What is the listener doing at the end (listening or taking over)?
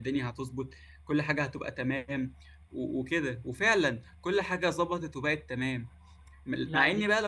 listening